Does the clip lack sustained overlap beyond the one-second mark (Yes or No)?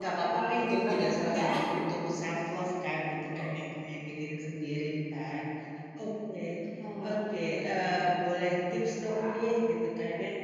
No